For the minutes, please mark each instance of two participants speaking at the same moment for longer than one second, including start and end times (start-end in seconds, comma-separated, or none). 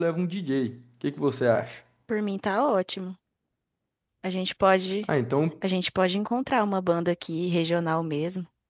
none